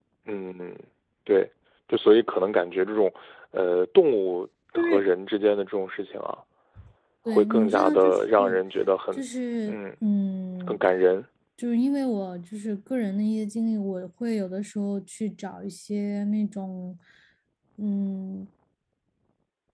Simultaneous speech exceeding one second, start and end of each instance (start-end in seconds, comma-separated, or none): 7.3-8.6